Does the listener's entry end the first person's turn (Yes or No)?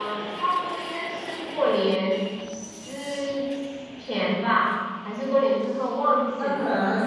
Yes